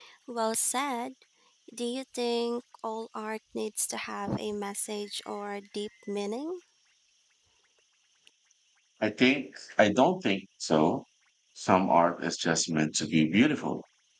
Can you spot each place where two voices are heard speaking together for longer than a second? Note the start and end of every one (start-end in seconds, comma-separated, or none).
none